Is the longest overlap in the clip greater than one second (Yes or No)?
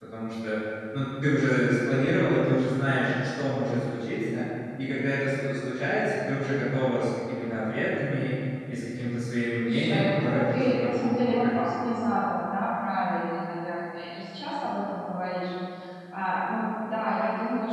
Yes